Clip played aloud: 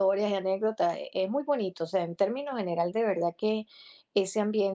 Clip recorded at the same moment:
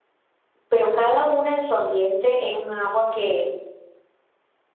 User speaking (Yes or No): Yes